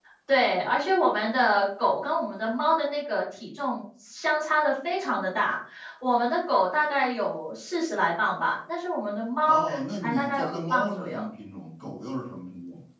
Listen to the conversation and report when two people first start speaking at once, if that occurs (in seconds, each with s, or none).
9.5 s